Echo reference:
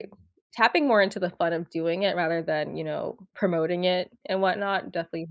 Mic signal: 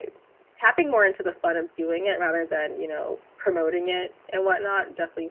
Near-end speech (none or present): none